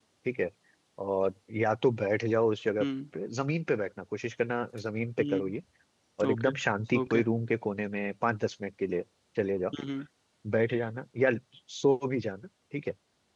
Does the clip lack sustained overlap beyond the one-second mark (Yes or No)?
Yes